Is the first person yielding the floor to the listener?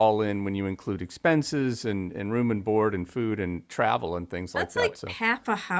Yes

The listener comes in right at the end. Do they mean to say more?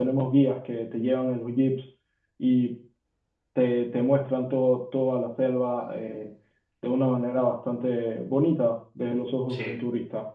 Yes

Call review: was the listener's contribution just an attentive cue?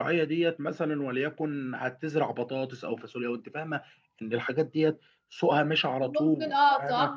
No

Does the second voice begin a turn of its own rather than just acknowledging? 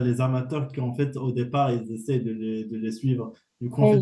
Yes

